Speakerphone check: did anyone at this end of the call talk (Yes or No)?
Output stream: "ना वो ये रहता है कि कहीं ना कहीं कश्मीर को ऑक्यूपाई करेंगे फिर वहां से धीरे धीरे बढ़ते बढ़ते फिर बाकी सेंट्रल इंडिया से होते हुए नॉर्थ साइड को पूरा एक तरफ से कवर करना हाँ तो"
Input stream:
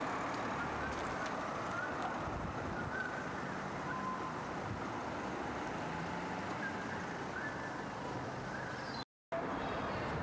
No